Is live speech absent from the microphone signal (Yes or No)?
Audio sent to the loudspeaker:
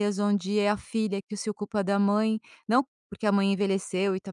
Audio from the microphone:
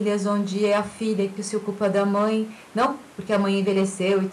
Yes